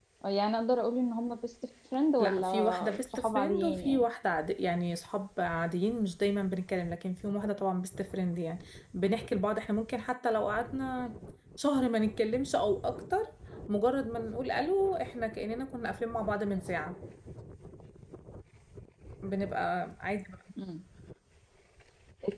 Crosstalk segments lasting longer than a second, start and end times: 2.2-4.0

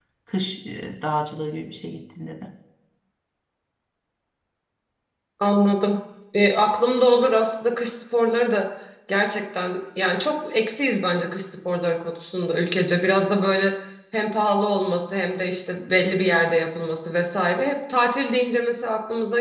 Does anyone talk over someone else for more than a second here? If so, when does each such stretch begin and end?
none

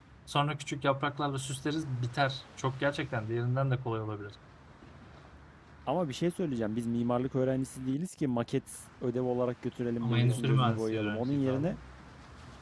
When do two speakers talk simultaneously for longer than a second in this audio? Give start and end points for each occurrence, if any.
10.0-11.7

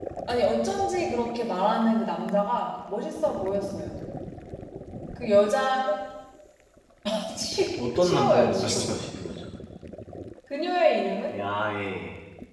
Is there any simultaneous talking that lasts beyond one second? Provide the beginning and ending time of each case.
7.8-9.0

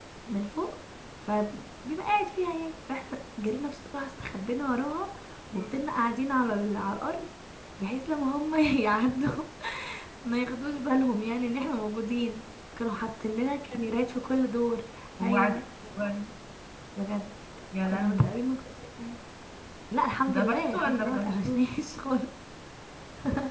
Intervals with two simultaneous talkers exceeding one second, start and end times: 20.3-21.6

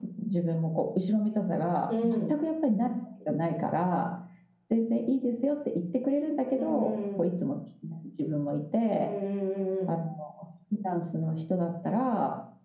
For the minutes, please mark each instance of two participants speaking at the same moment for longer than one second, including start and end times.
none

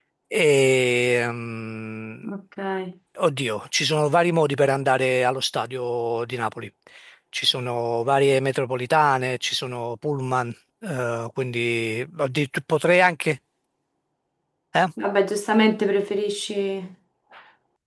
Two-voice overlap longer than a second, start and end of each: none

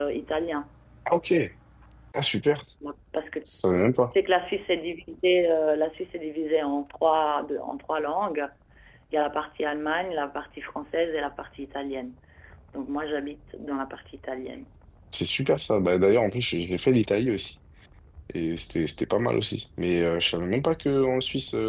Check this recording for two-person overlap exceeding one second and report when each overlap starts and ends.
none

